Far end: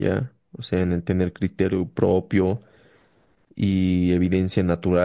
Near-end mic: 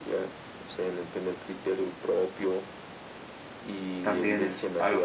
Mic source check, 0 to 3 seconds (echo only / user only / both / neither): echo only